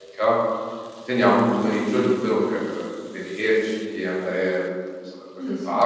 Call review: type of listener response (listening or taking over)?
taking over